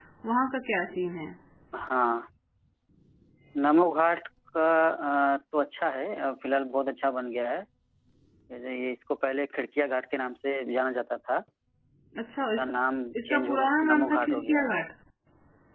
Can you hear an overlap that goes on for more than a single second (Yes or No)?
Yes